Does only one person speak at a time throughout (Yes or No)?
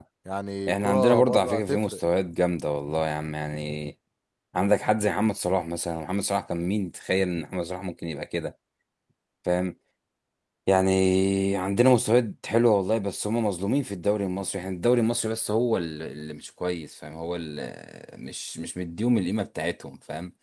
No